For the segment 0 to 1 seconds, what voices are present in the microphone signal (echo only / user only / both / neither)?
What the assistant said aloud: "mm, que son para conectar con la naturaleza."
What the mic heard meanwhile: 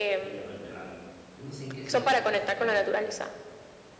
both